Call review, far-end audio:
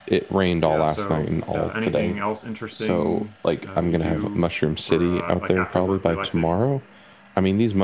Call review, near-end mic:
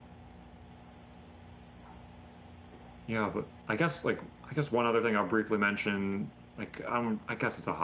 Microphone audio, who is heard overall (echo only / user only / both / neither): user only